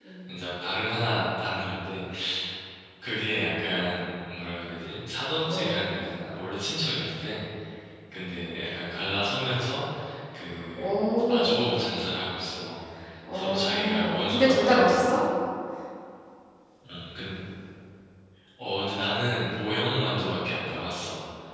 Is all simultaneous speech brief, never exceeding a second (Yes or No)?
No